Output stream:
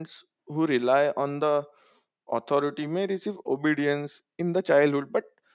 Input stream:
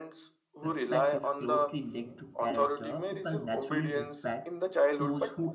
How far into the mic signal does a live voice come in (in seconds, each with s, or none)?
0.6 s